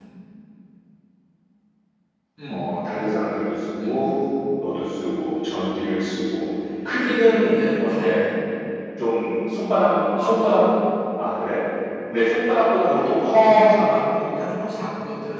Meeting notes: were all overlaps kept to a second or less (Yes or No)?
No